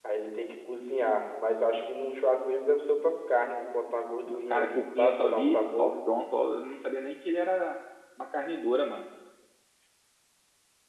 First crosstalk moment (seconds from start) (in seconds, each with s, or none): 4.2 s